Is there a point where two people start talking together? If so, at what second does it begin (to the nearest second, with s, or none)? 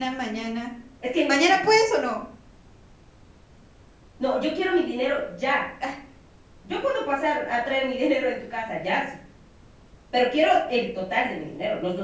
none